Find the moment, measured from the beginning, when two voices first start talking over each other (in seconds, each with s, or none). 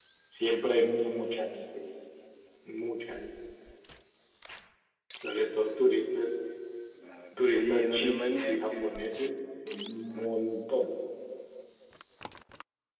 7.3 s